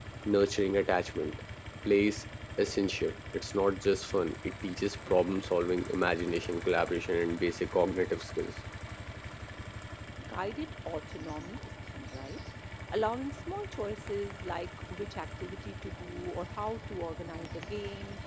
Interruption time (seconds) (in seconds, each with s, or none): none